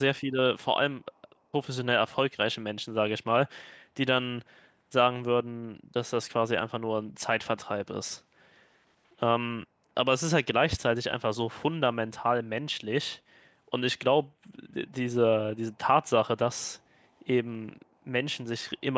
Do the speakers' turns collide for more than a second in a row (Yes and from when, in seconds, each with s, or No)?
No